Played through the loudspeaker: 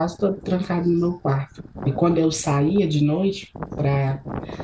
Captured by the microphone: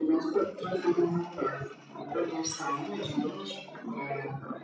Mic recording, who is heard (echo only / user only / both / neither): echo only